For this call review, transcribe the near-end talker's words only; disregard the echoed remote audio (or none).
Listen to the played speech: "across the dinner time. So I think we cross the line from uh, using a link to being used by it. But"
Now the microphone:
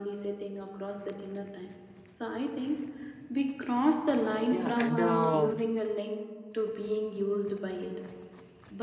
yeah and uh,